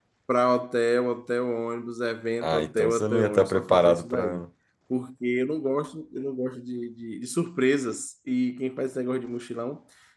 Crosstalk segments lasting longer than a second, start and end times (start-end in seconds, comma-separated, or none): 2.4-4.4